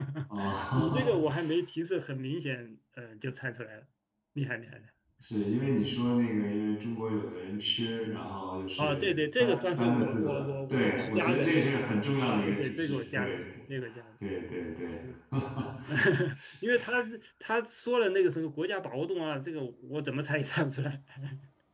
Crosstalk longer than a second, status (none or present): present